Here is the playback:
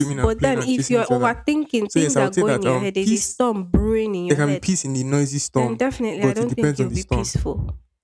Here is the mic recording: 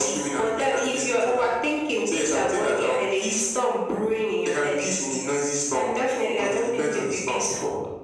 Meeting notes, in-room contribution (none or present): none